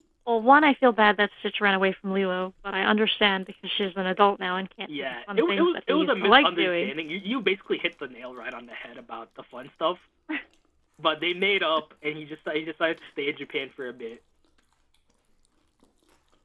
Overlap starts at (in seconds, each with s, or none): 4.9 s